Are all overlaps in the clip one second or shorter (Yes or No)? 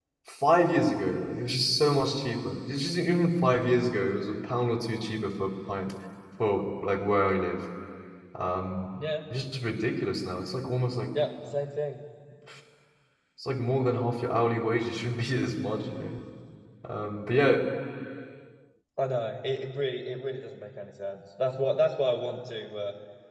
Yes